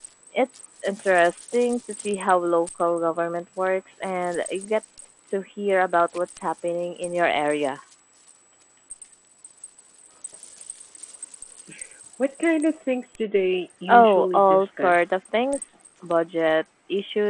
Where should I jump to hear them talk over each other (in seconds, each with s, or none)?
13.9 s